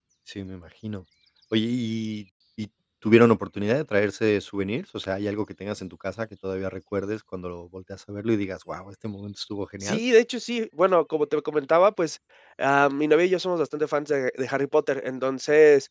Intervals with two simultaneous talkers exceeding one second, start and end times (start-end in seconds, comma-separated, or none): none